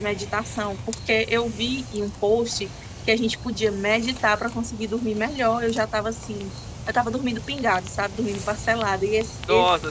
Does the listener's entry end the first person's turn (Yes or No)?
Yes